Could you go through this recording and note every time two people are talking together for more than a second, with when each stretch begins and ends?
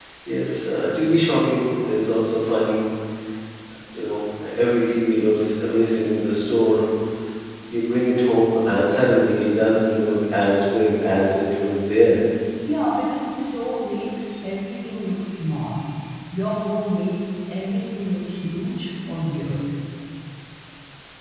none

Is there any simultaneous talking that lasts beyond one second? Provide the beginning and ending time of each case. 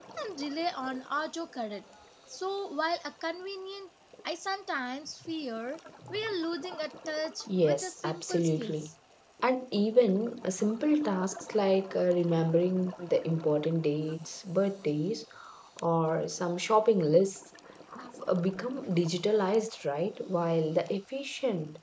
7.5-8.9

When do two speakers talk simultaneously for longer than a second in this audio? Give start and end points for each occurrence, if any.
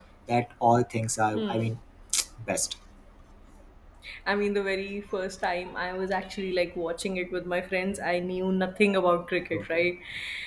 none

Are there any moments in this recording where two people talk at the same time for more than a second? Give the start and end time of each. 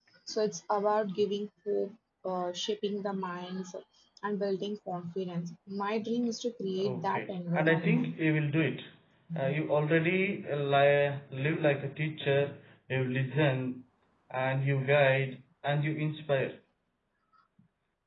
6.8-8.1

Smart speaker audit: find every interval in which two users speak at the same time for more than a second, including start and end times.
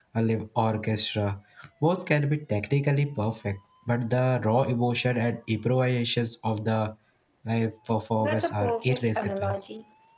8.2-9.6

